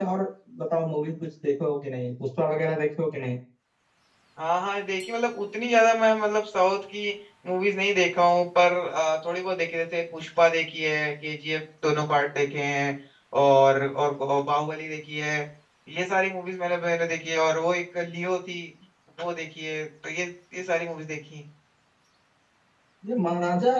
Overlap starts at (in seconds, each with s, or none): none